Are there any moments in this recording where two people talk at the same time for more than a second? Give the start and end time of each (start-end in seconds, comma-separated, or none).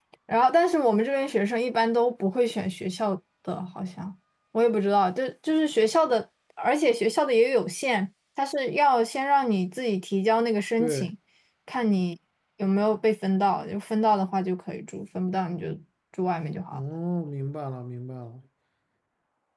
none